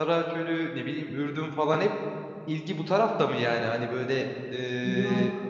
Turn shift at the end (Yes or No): No